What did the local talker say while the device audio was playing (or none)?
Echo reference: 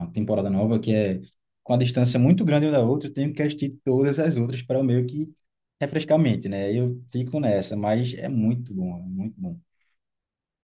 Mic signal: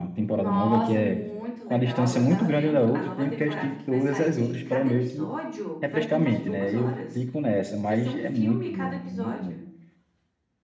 Nossa, muito legal. Eu tava vendo a nova temporada que vai sair. Cada episódio vai ter umas duas horas. Vai ser um filme cada episódio.